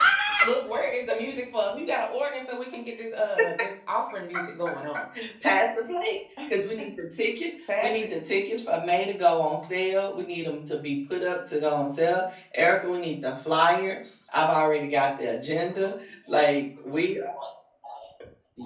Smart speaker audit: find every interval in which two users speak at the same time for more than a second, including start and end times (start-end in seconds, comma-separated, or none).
none